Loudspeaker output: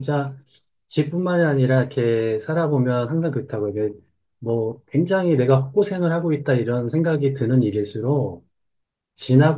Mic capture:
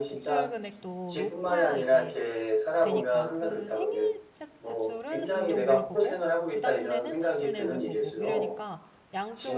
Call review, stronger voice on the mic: echo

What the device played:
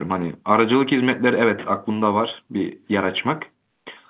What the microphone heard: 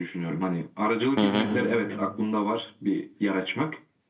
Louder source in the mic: user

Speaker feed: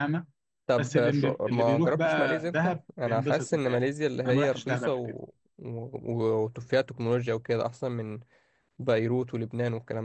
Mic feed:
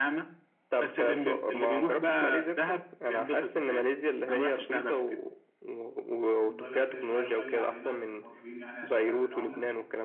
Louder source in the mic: echo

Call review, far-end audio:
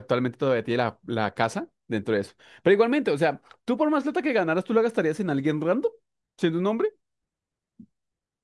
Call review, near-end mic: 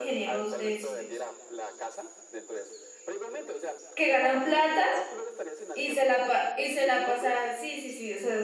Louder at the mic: user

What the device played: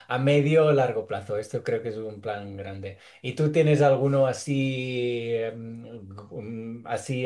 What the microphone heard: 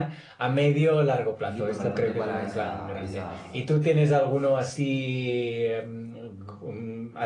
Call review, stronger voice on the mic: echo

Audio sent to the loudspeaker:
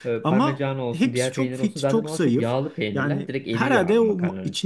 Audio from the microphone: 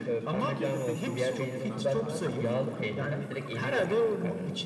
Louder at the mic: echo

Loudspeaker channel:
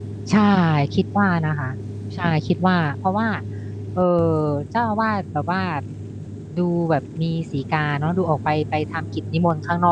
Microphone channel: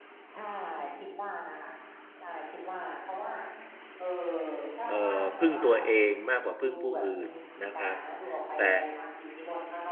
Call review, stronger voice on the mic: user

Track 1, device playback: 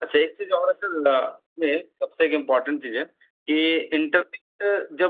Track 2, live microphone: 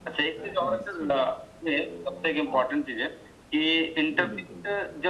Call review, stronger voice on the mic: echo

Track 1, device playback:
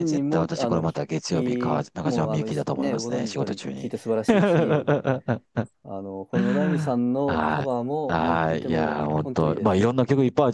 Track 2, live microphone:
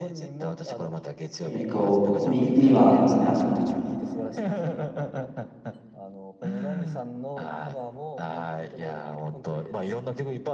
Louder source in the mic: user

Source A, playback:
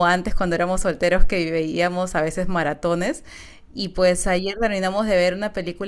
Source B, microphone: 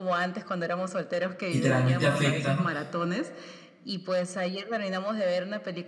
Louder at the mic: user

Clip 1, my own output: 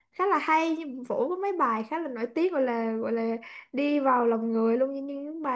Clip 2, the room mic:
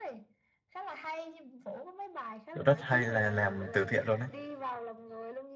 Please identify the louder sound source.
user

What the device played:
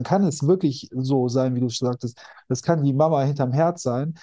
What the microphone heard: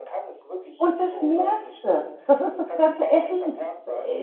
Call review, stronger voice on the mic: user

